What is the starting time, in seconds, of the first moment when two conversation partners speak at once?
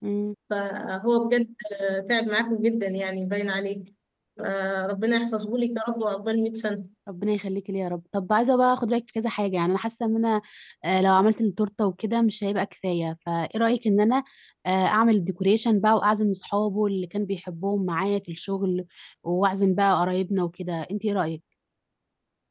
none

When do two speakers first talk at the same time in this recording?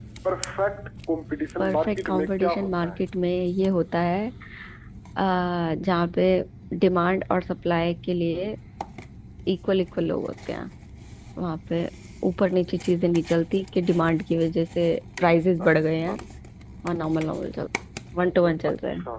1.6 s

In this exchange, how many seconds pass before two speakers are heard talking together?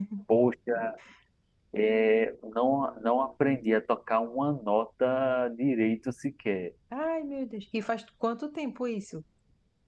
none

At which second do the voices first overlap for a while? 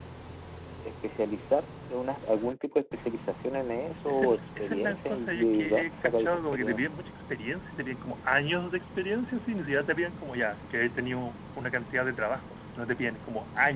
4.1 s

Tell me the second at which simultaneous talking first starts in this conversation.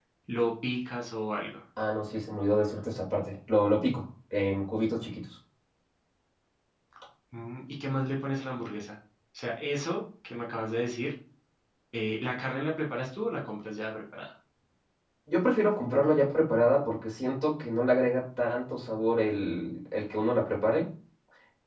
none

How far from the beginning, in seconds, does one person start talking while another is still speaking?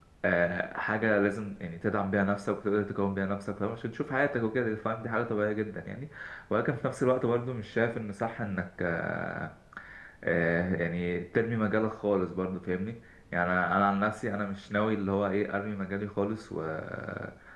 none

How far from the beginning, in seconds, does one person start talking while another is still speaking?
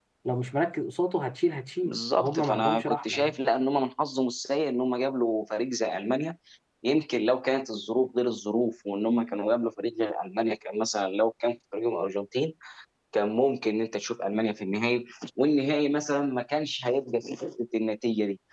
1.8 s

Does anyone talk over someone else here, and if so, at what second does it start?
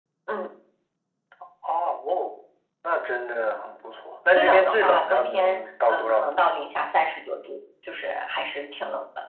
4.3 s

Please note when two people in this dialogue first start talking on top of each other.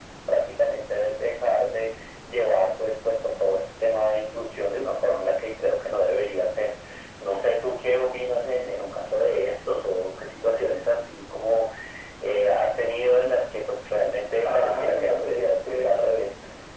14.4 s

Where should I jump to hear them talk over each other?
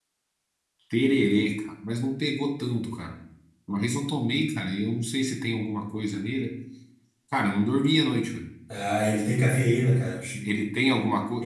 none

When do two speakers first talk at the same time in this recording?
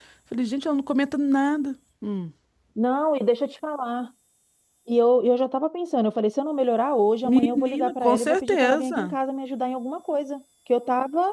7.2 s

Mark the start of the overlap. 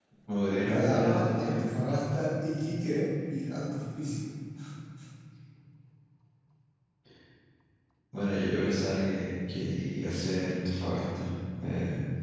0.7 s

